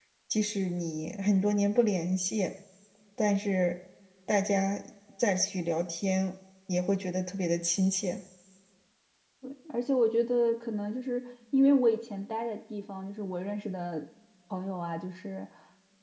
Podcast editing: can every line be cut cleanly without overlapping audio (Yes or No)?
Yes